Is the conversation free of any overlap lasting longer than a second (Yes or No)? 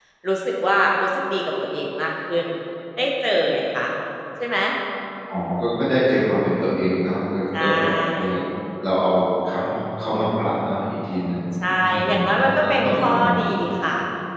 No